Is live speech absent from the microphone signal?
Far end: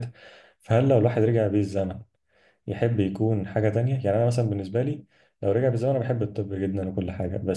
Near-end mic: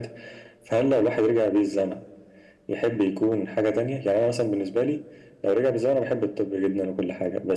Yes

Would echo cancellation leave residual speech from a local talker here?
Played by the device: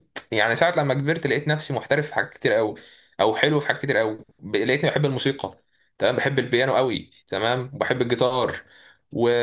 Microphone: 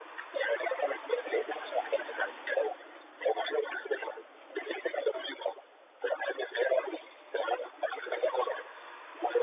No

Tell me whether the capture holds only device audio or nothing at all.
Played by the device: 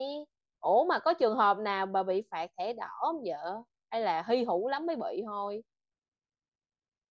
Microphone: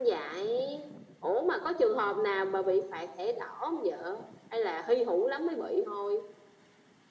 Yes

